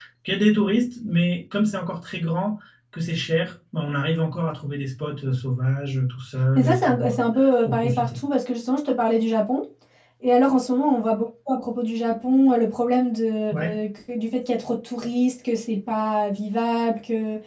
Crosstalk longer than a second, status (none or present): present